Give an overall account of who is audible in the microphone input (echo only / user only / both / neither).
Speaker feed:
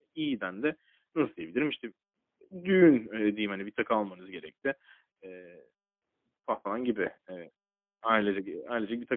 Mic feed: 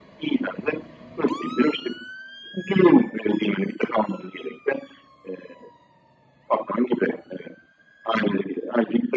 echo only